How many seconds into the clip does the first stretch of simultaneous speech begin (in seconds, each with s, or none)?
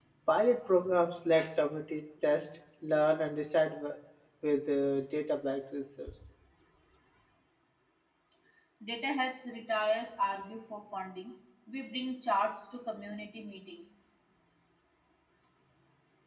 none